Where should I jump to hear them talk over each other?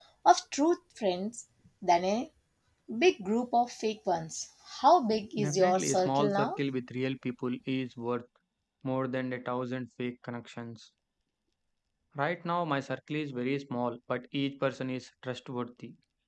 5 s

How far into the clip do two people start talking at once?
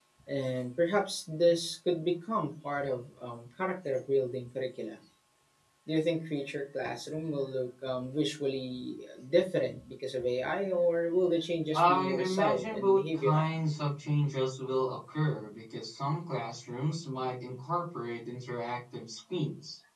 12 s

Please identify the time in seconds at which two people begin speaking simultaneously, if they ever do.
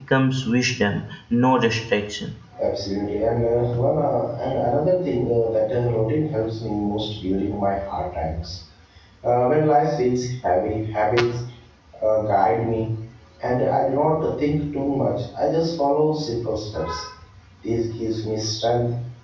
none

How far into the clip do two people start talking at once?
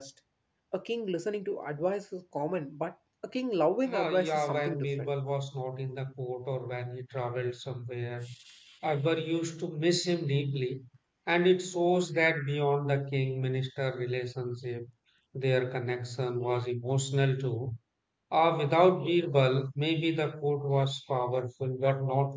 4 s

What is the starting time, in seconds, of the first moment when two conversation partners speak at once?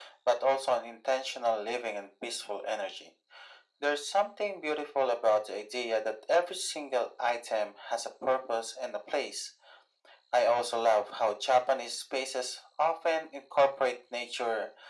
none

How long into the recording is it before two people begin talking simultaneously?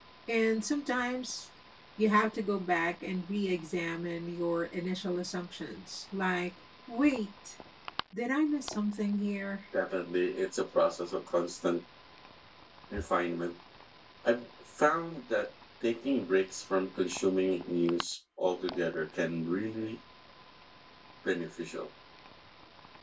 none

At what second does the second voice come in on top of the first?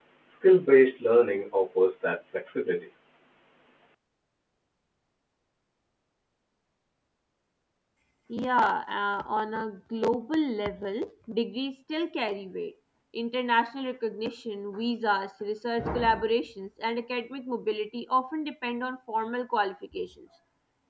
none

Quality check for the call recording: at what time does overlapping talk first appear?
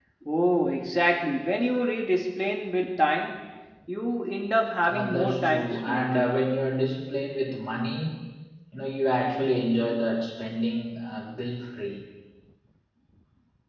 5 s

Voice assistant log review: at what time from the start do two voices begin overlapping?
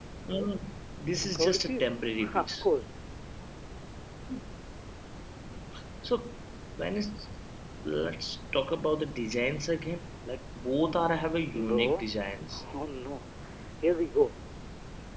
1 s

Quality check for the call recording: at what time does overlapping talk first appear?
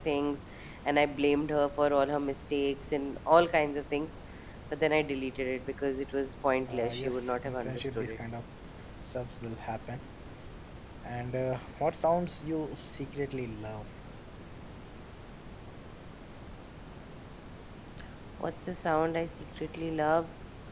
7 s

